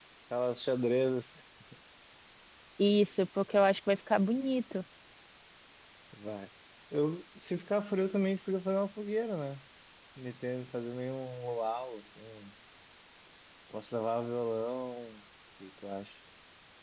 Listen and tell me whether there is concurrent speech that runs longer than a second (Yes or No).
No